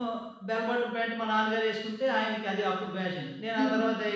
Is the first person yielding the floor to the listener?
No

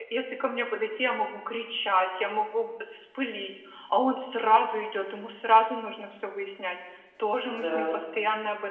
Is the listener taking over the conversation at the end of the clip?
No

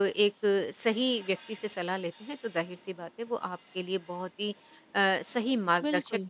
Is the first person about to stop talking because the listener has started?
No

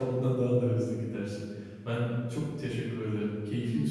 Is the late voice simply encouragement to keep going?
No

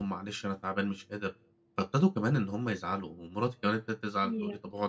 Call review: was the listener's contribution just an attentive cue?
Yes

